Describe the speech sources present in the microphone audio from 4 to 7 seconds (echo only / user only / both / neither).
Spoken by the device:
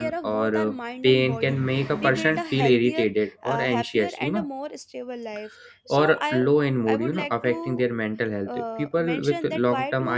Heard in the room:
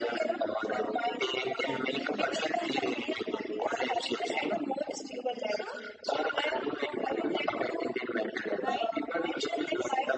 both